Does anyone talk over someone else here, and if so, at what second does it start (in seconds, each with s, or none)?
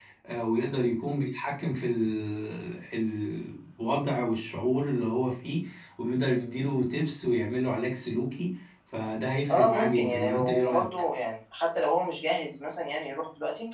9.5 s